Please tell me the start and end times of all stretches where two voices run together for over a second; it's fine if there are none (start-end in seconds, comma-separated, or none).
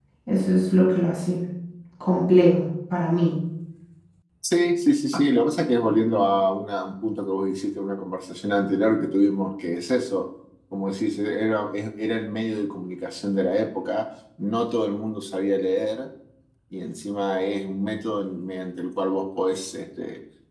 none